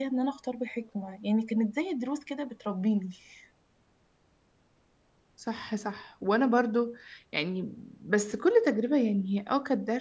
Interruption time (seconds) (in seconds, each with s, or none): none